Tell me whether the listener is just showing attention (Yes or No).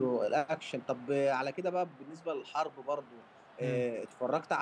Yes